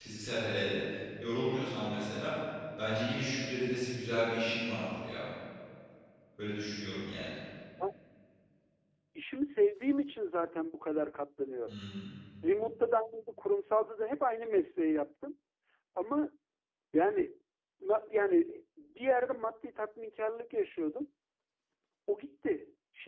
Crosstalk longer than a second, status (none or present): none